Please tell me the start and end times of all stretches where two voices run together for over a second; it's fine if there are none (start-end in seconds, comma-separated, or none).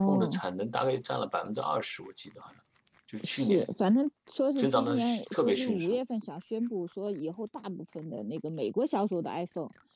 4.6-6.0